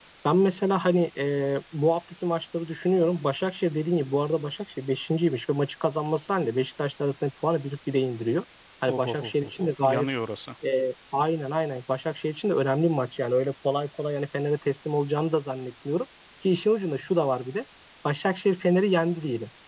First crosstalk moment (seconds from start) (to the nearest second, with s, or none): 9 s